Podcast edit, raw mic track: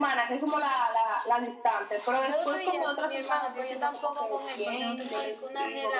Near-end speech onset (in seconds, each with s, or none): 2.1 s